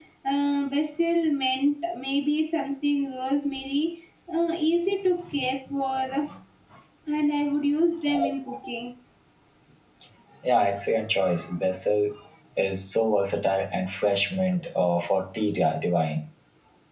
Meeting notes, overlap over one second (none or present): none